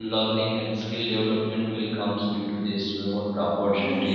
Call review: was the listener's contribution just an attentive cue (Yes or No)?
Yes